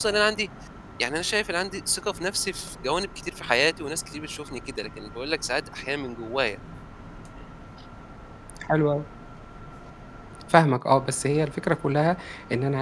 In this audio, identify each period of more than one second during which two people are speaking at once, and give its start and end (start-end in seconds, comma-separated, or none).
none